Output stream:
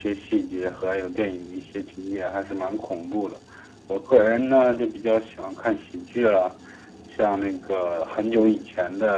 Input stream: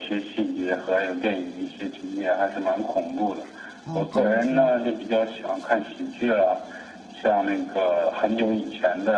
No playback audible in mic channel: No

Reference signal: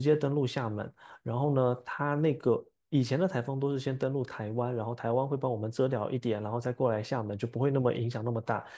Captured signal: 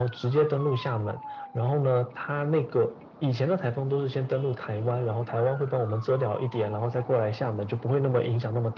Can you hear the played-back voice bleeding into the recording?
Yes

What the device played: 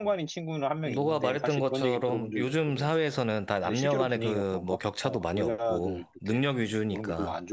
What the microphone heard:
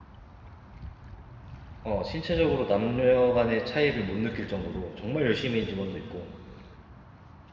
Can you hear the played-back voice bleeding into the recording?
No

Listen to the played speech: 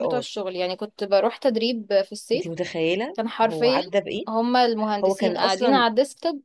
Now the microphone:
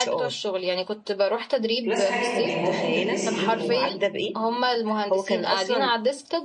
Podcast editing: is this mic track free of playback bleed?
No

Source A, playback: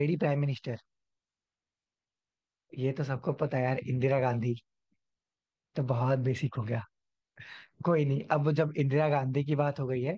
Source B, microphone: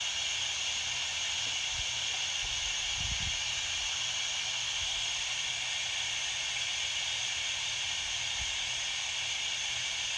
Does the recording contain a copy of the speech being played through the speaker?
No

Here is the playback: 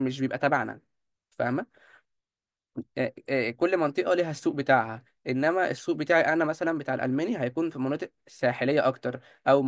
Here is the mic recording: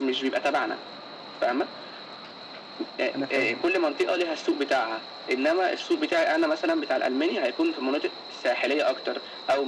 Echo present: Yes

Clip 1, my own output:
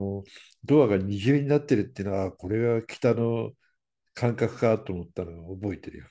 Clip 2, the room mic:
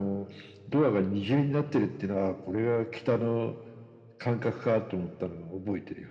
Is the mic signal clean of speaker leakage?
No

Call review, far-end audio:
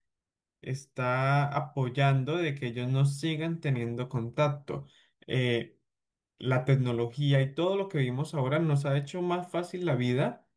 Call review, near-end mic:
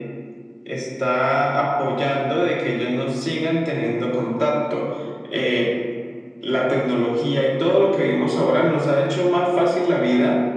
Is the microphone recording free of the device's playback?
No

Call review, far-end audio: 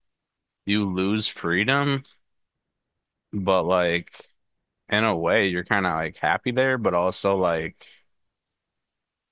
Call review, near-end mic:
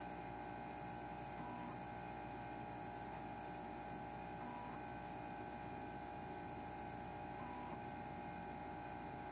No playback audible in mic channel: Yes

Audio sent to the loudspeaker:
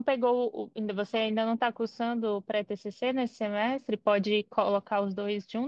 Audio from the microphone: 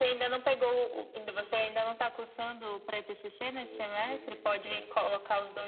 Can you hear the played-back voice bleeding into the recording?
Yes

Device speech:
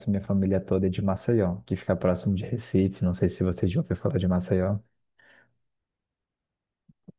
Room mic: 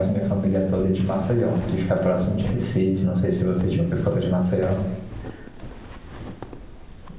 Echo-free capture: No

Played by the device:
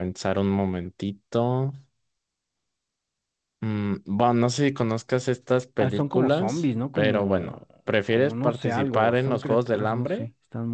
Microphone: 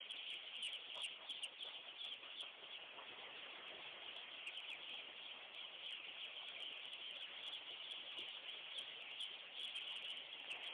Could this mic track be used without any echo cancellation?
Yes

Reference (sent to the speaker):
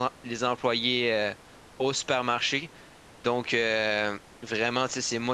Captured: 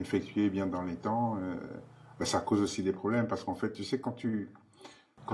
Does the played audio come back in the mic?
No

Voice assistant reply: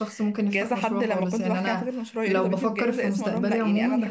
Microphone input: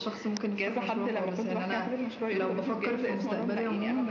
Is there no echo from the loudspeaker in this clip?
No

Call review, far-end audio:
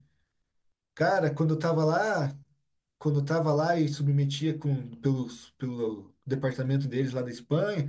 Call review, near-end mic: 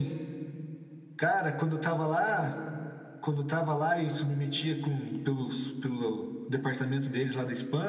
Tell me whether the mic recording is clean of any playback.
No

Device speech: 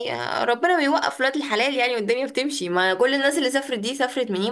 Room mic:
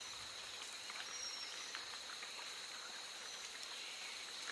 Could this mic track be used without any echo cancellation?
Yes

